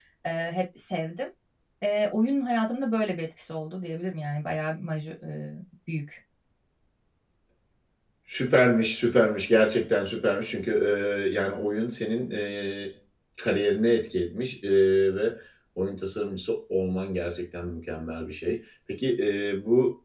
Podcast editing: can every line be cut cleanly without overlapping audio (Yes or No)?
Yes